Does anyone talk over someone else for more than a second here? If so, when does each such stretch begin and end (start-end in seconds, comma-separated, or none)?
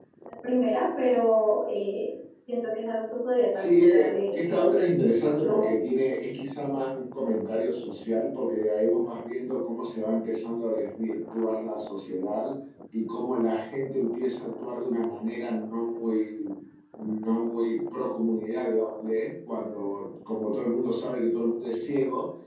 3.5-4.8